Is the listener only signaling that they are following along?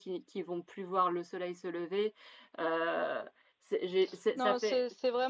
No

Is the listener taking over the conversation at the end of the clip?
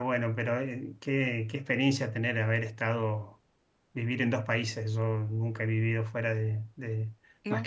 No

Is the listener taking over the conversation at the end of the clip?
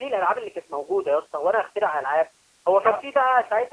No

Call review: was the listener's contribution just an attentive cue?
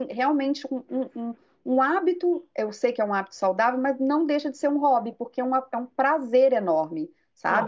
No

